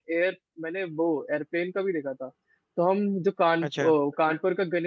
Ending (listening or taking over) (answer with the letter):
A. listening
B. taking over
A